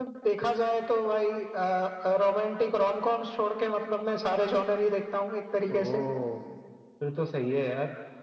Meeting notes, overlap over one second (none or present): none